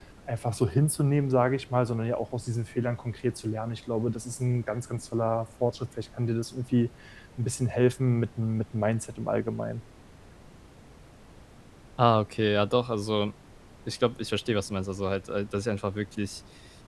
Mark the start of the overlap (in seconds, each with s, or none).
none